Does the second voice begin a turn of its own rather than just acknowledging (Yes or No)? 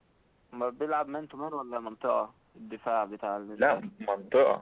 Yes